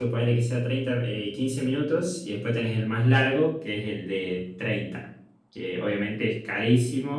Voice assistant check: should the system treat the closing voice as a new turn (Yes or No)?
No